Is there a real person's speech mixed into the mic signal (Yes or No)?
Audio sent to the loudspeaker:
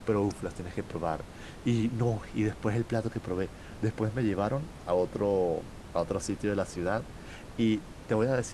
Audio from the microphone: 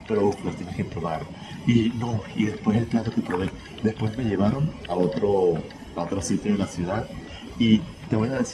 No